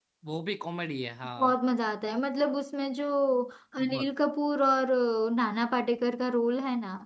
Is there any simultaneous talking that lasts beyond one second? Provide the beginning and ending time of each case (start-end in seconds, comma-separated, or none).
none